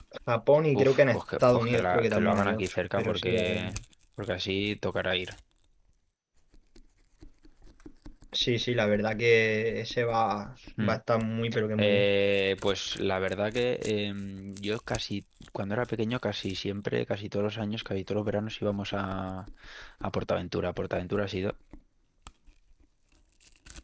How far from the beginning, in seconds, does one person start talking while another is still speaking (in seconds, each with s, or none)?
0.8 s